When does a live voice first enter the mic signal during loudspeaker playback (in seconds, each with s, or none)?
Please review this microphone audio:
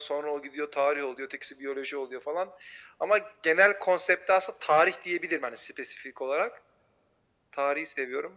none